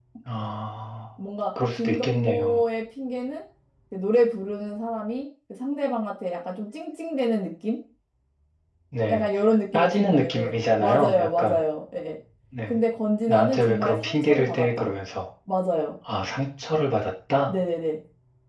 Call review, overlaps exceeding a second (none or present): present